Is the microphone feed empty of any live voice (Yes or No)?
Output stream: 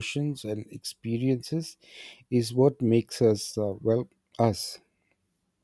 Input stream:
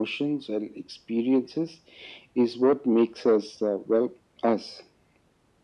Yes